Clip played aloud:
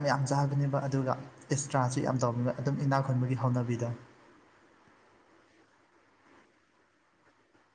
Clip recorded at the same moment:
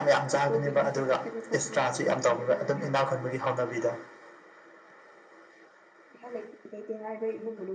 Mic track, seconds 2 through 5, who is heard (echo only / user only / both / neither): both